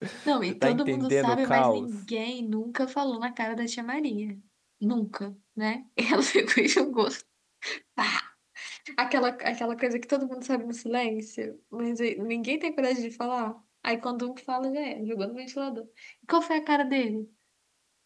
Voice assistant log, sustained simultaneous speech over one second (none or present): present